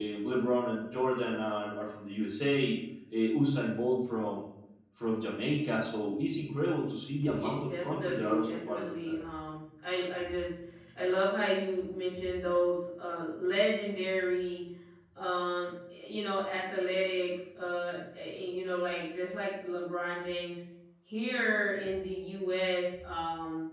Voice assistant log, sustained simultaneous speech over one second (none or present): present